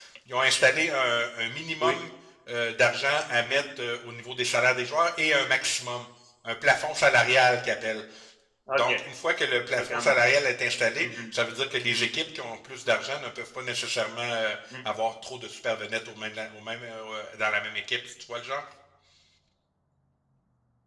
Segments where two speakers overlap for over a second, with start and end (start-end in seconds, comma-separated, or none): none